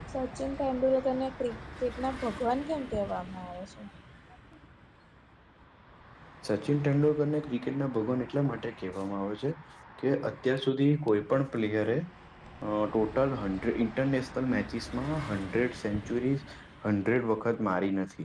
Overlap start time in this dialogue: none

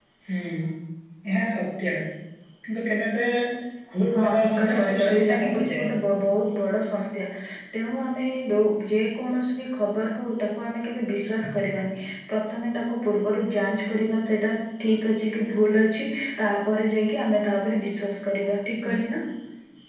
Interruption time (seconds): 4.2 s

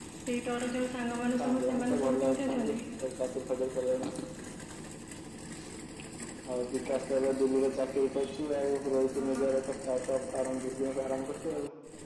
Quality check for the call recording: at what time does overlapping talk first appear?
1.4 s

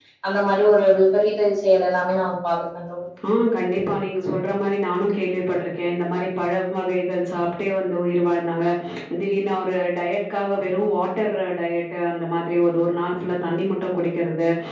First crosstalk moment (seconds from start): none

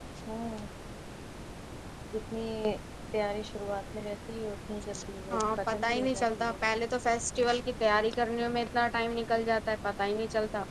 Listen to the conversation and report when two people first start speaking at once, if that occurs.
5.3 s

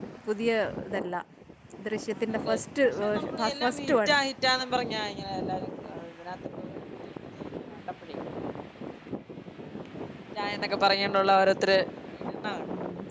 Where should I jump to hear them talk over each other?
2.2 s

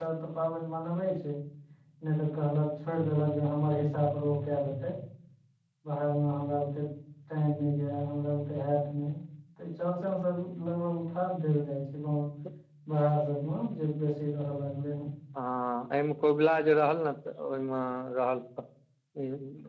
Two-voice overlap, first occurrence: none

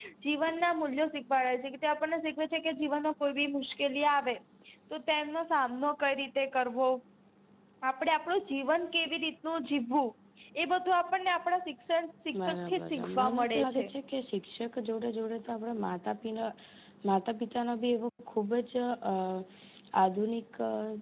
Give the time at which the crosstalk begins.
12.3 s

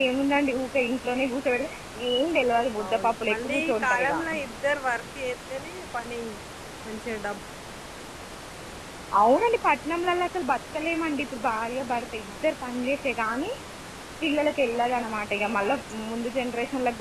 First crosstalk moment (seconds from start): 2.8 s

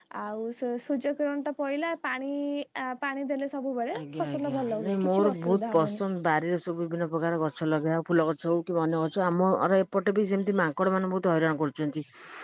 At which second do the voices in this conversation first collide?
3.9 s

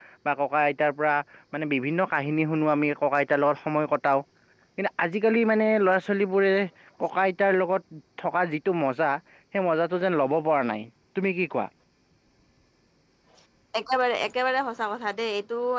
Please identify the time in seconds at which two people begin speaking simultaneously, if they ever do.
none

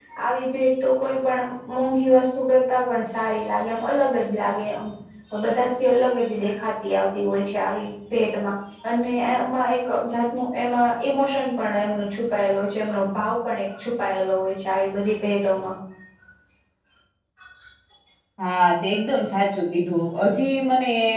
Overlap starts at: none

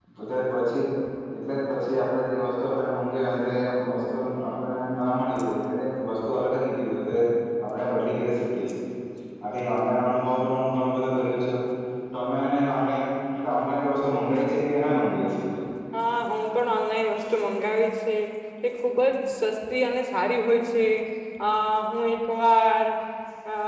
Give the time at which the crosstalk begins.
none

